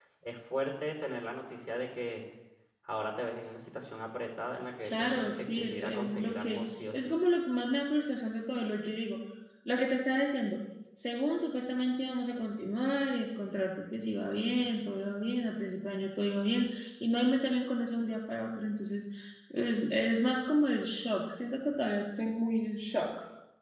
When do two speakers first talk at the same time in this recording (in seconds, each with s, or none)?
4.8 s